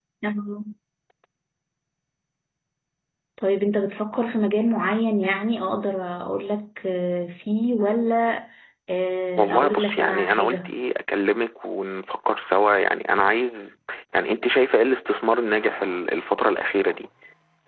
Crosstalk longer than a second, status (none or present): present